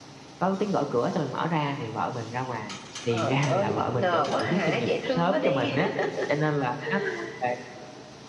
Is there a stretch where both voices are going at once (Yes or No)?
Yes